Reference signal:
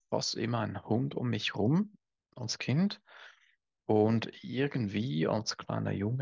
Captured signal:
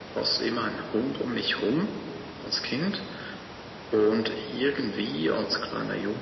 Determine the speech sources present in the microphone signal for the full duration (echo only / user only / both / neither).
echo only